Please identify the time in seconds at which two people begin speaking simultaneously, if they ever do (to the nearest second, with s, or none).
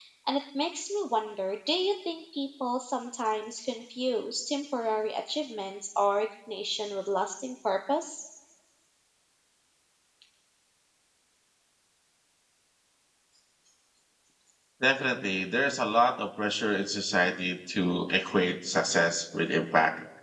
none